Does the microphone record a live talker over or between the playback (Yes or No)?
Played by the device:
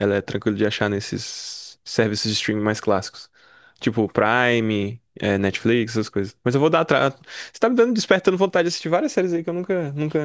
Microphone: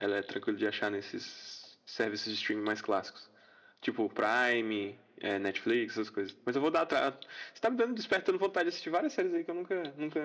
No